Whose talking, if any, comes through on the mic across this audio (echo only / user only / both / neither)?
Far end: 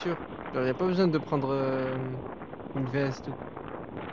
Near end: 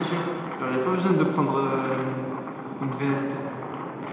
echo only